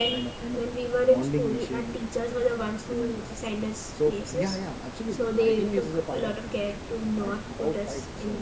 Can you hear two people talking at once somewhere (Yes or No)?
Yes